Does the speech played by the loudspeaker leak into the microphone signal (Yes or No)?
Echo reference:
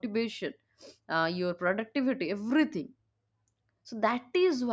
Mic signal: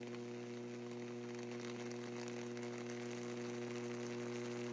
No